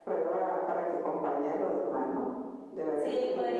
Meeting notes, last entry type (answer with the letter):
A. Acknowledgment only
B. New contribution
B